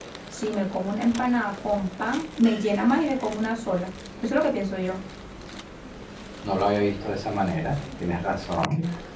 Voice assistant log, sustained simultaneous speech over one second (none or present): none